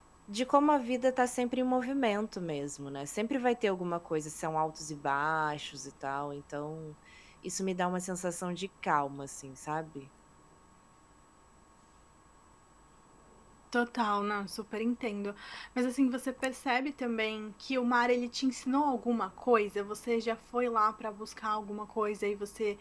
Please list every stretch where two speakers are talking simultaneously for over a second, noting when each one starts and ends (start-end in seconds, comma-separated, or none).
none